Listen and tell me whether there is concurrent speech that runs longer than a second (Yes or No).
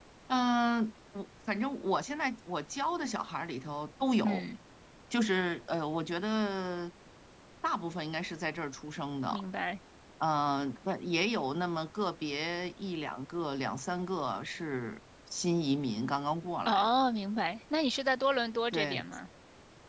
No